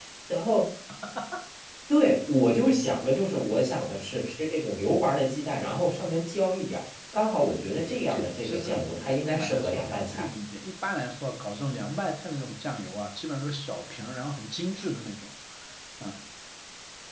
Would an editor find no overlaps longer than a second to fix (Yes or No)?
No